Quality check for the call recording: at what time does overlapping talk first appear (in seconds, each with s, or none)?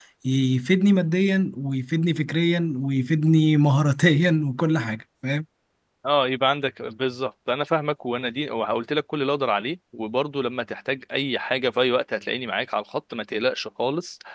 none